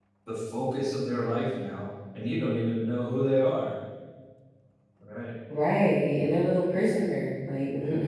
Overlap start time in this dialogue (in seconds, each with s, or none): none